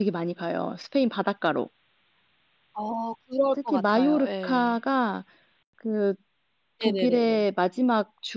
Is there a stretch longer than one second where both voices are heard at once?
Yes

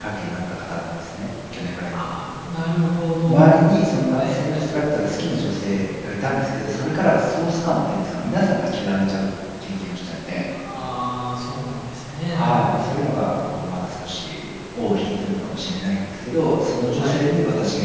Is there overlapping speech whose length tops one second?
Yes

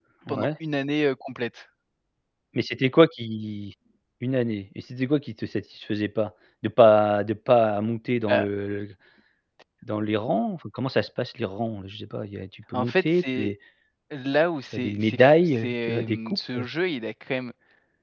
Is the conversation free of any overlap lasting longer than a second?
No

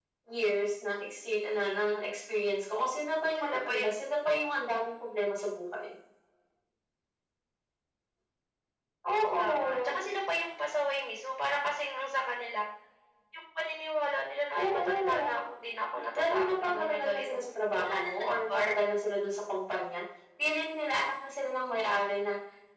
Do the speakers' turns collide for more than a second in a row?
Yes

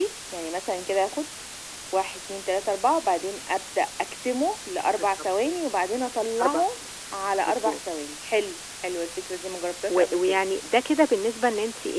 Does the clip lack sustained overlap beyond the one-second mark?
Yes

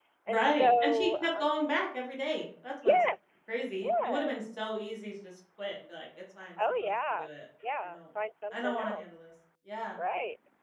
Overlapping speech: Yes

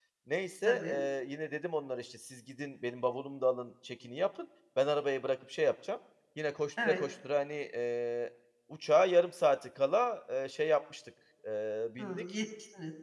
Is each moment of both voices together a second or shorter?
Yes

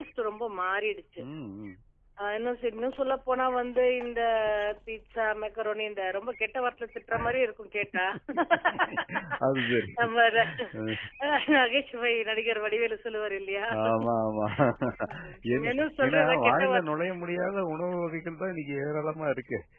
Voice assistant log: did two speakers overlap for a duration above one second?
Yes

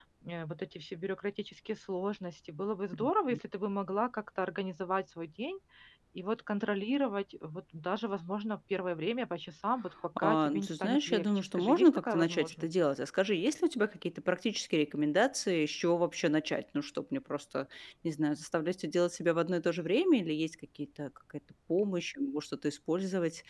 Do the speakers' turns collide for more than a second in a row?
Yes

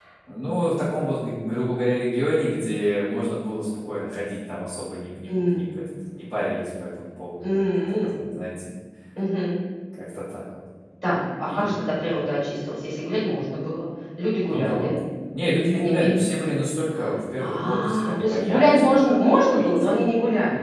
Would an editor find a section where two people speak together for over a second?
Yes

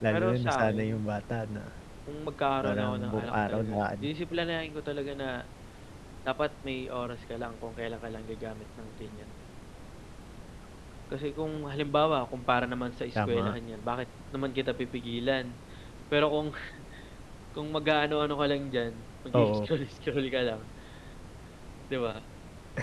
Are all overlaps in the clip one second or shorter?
No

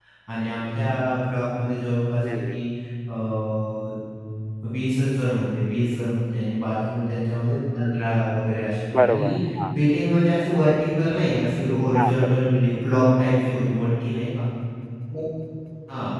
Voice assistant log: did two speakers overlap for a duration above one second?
No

